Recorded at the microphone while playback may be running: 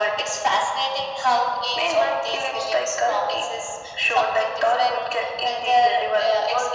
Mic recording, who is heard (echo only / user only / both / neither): echo only